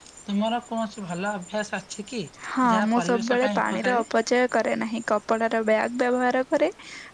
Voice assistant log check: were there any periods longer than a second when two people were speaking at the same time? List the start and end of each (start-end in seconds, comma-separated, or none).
2.7-4.0